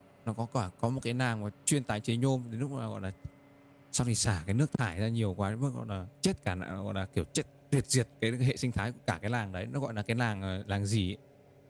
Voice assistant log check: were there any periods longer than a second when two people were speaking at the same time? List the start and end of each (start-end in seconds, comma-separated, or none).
none